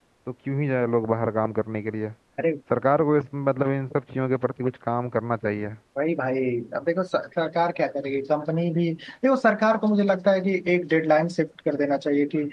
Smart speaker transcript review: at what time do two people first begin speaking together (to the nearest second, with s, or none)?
none